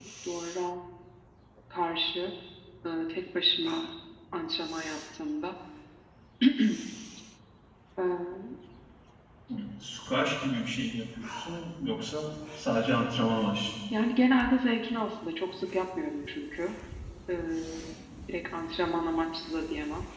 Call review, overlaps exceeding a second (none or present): none